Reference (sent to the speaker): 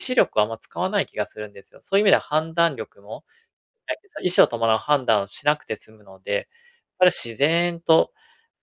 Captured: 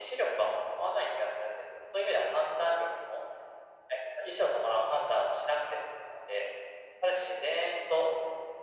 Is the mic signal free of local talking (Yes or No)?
Yes